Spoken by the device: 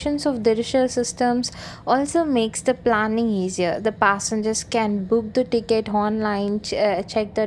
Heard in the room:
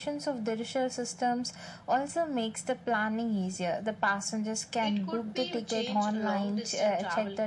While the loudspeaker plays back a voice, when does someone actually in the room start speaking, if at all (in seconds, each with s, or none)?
4.8 s